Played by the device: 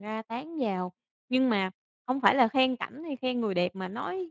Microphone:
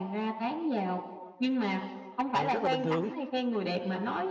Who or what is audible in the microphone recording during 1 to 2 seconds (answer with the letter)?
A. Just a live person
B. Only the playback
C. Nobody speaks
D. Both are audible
B